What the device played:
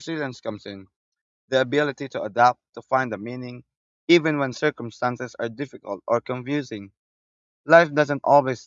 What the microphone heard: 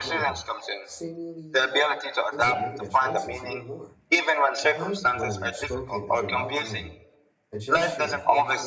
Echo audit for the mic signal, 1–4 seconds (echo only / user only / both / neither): both